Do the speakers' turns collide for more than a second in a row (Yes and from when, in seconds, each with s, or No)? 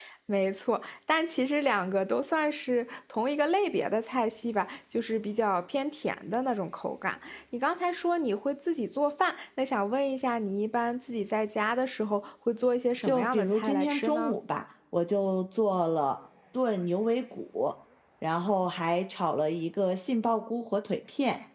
Yes, from 13.0 s